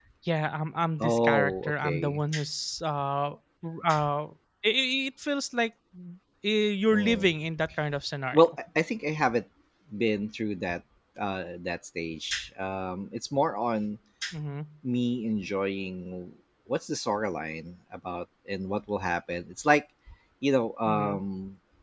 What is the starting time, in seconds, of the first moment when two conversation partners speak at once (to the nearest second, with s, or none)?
1 s